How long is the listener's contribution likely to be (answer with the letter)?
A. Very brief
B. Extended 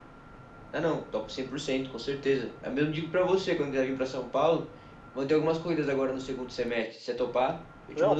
B